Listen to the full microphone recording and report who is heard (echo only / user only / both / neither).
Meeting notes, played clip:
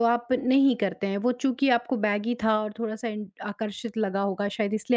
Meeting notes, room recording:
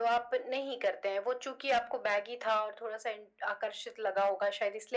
echo only